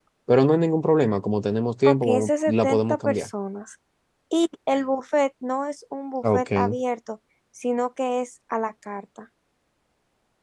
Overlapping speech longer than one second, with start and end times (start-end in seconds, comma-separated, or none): 1.8-3.3